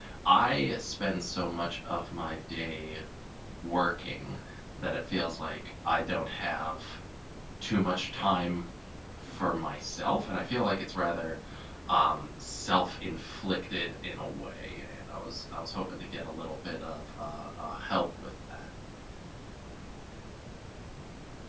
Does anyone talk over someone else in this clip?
No

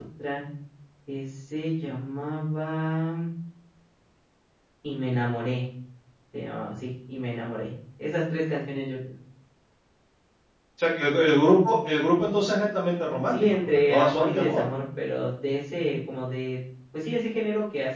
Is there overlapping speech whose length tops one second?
Yes, from 13.3 s

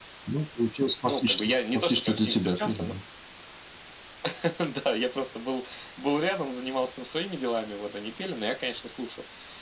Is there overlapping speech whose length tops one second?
Yes, from 1.0 s

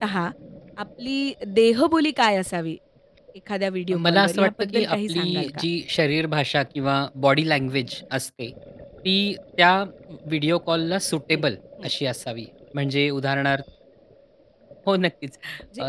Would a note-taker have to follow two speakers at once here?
Yes, from 4.0 s

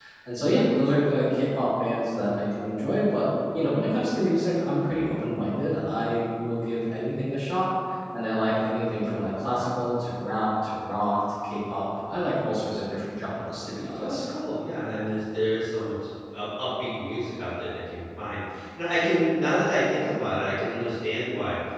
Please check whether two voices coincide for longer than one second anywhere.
No

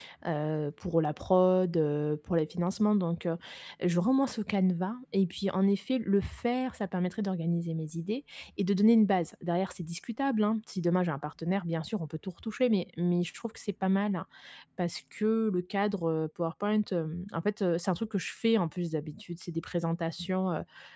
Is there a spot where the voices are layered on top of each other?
No

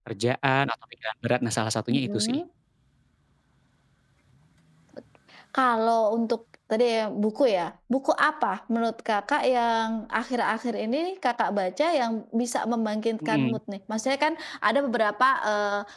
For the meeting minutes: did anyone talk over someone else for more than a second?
No

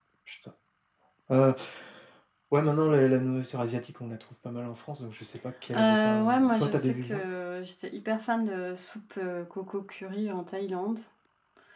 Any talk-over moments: Yes, from 5.7 s

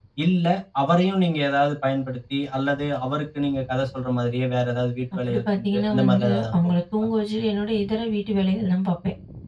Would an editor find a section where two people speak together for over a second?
Yes, from 5.1 s

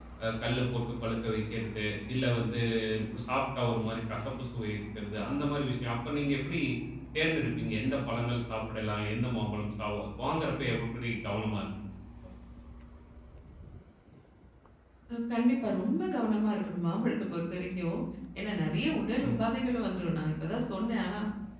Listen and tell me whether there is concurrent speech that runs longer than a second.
No

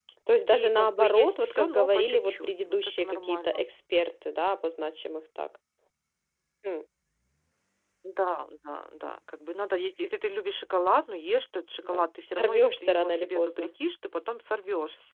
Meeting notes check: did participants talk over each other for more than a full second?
Yes, from 0.5 s

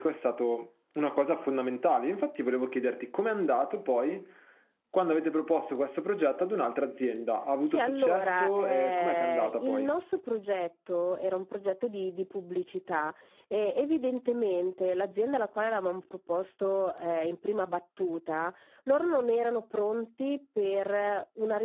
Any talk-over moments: Yes, from 7.7 s

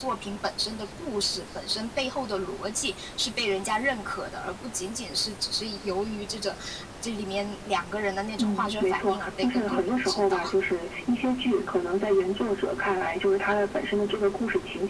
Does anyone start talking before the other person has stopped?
Yes, from 8.4 s

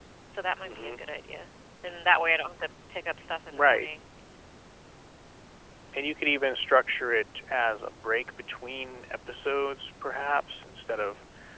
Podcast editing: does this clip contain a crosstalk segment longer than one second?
No

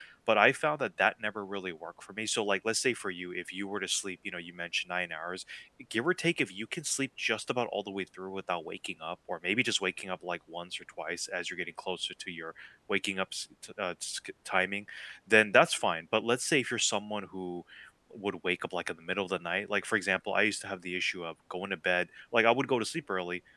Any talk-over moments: No

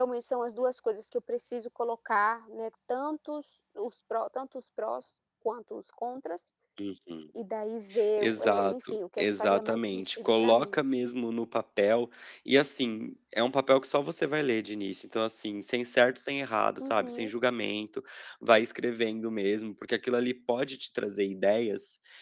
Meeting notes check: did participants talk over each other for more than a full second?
Yes, from 8.2 s

